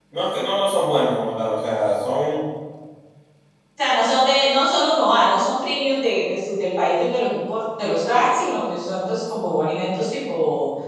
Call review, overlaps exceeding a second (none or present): none